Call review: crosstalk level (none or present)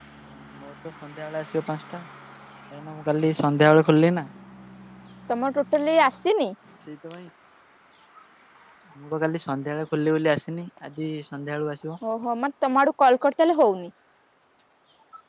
none